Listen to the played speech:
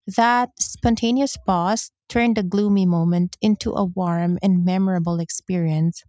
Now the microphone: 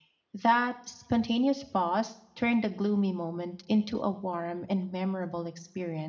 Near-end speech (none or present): none